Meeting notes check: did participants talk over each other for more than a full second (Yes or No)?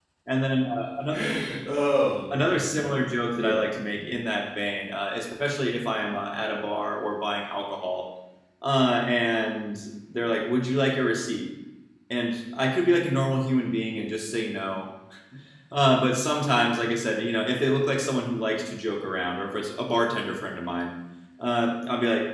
No